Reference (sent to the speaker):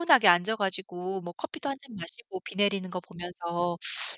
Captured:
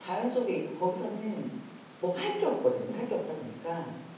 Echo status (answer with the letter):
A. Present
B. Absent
B